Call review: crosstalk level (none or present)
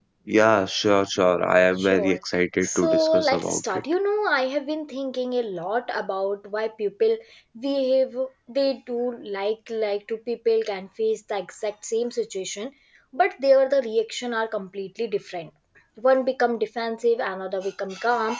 present